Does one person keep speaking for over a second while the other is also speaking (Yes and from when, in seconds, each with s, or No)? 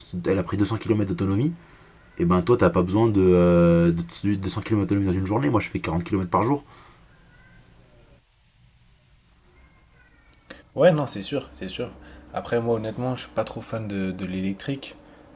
No